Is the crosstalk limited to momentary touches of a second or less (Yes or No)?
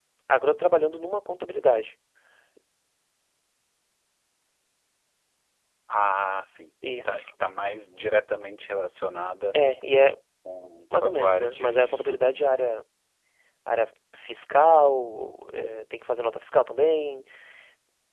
No